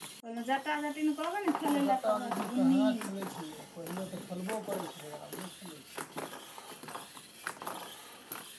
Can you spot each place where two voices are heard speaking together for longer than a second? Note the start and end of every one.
1.6-2.9

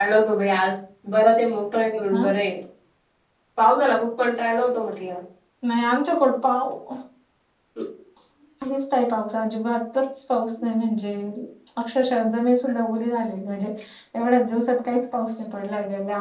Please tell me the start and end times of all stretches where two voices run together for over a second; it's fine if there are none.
none

